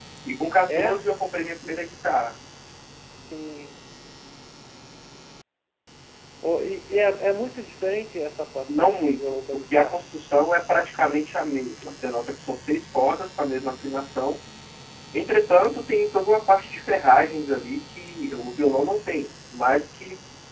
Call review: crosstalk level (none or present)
present